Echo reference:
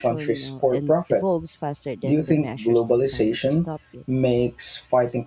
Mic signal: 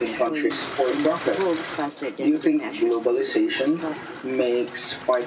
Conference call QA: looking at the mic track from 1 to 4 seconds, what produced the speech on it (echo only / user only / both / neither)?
echo only